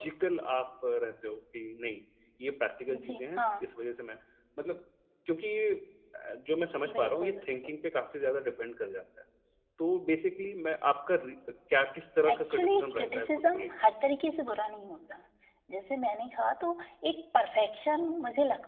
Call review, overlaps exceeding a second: present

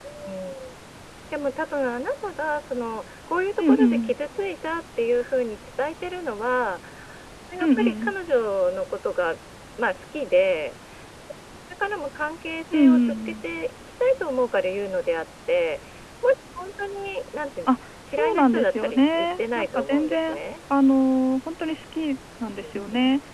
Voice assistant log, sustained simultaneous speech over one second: present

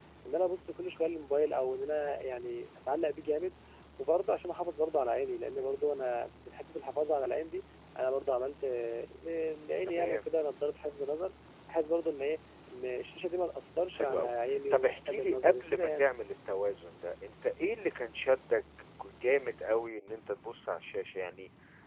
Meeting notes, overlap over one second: present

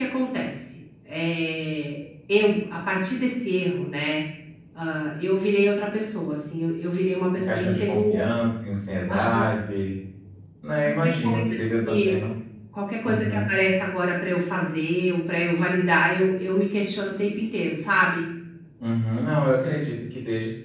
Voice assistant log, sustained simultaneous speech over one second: present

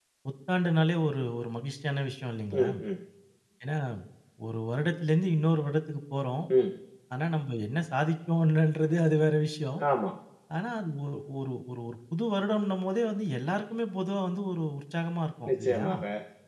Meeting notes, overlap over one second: none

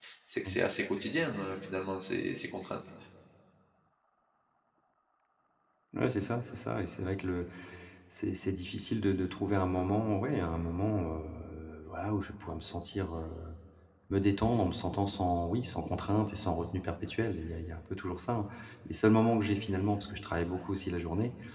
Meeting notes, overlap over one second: none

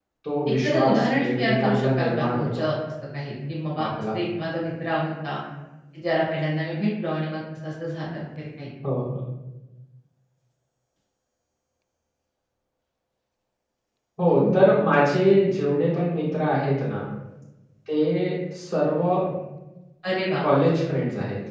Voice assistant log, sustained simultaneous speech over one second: present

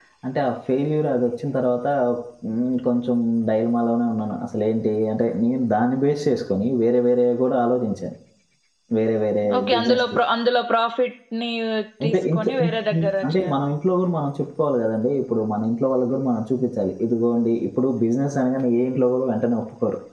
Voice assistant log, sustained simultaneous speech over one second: present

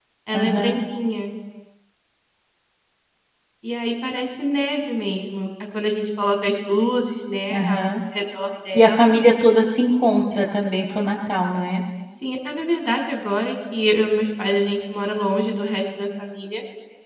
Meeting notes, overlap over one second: none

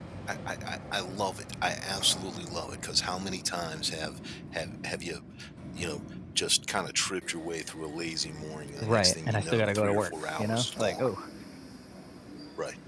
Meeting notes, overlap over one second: present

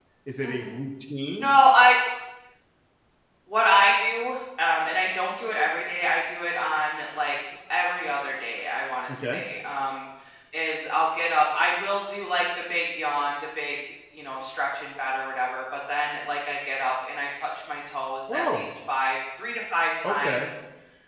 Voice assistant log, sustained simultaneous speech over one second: none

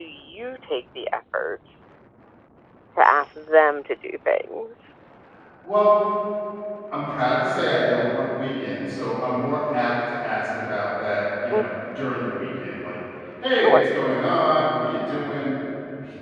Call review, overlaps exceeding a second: none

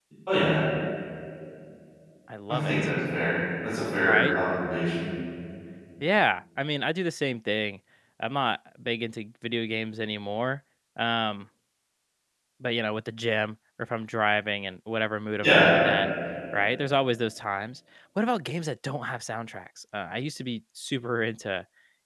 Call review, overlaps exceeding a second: none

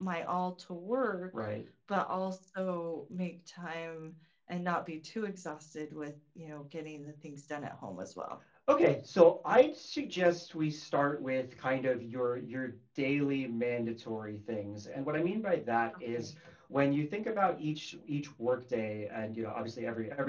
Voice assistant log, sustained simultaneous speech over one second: none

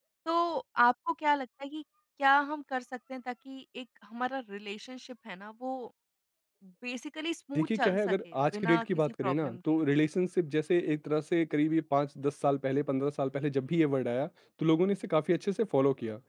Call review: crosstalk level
present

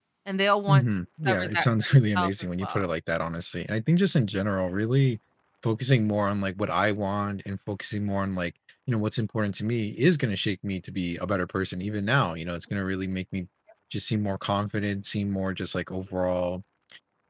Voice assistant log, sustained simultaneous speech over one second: present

